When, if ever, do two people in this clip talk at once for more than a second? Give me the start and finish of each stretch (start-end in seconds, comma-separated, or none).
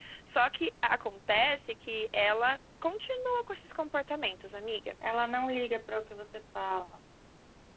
none